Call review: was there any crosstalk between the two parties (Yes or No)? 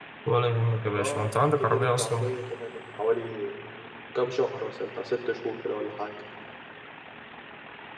Yes